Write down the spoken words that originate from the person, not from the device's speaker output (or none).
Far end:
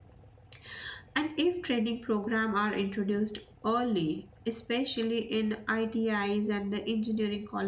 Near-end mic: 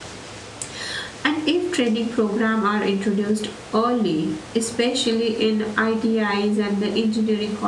none